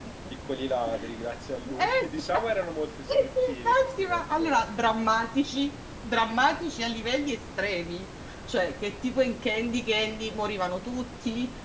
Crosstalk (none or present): present